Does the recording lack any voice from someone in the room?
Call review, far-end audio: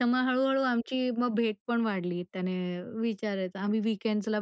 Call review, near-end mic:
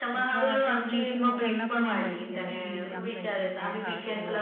No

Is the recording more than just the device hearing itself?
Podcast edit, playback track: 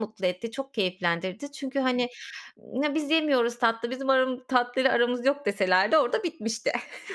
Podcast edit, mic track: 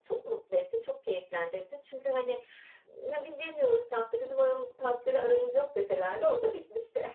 No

